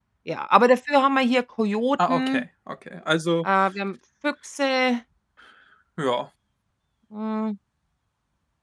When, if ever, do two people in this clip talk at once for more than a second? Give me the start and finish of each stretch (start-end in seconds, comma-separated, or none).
none